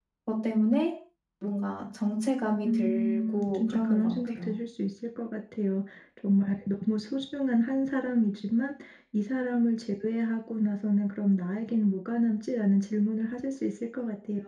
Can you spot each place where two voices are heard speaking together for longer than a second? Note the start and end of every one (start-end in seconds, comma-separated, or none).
2.6-4.5